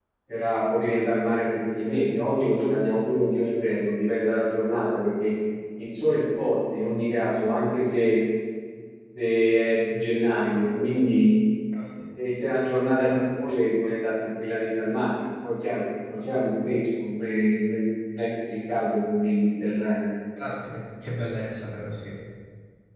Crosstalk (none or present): none